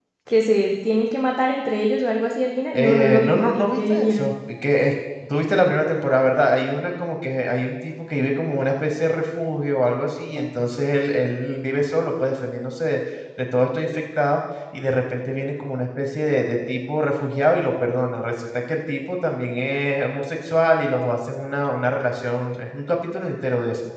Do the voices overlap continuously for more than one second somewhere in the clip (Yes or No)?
Yes